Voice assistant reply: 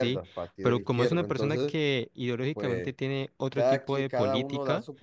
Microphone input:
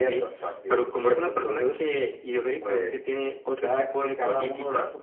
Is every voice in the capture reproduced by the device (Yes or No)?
Yes